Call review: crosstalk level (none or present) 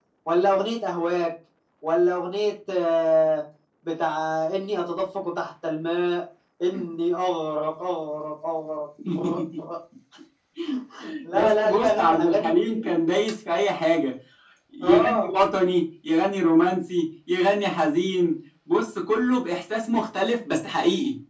present